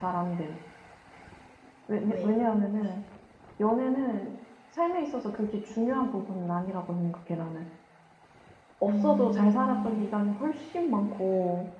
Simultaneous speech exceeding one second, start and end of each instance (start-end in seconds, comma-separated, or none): 8.8-10.1